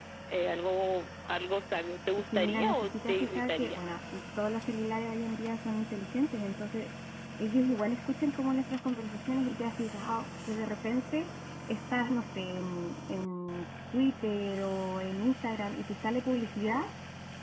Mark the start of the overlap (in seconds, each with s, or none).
2.3 s